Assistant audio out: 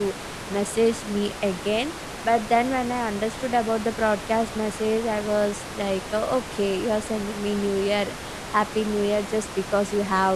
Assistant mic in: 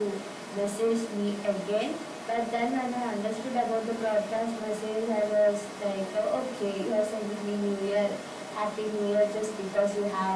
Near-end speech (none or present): none